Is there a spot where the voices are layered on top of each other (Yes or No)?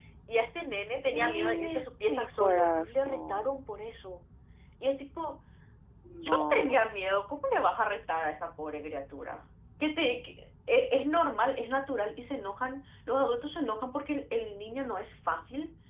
Yes